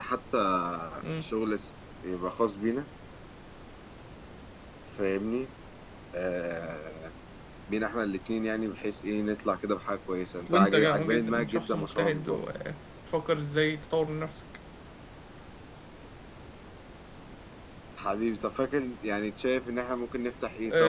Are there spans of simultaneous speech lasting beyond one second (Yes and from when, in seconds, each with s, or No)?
Yes, from 10.5 s